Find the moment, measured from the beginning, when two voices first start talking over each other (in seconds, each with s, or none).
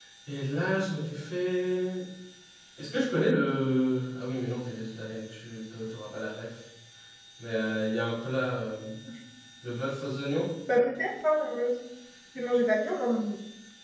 none